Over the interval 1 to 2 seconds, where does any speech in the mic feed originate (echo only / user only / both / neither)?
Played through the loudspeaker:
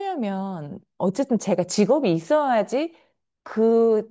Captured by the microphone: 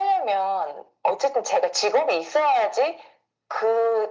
echo only